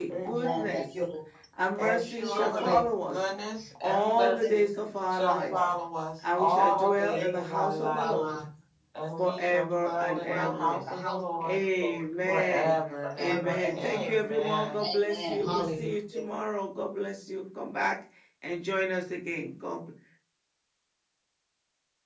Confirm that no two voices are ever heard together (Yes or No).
No